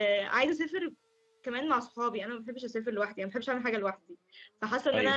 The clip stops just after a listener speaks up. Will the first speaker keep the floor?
Yes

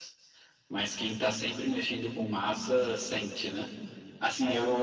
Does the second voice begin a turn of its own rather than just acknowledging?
No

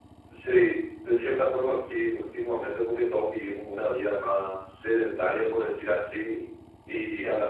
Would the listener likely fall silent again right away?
Yes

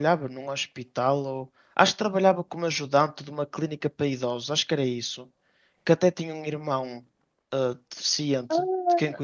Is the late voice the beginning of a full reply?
Yes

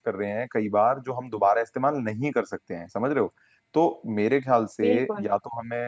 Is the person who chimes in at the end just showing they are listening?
Yes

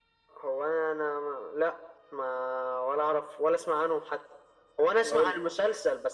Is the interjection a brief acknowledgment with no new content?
Yes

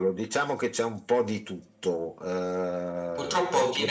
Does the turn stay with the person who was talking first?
No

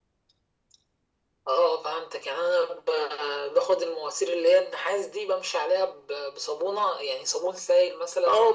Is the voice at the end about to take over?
Yes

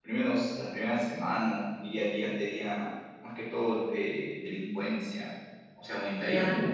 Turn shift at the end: No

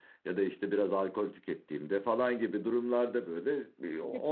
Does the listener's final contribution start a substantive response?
Yes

